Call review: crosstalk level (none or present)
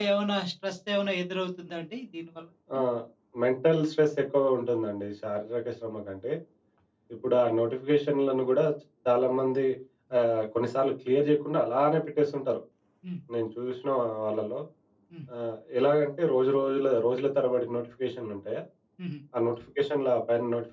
none